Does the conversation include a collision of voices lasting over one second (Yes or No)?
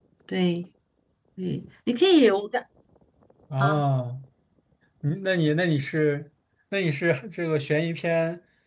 No